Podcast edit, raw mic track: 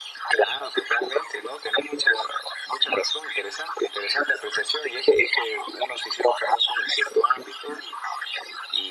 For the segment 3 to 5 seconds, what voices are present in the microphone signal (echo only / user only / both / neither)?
echo only